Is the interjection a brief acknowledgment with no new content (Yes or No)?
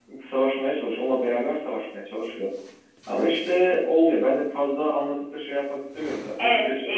No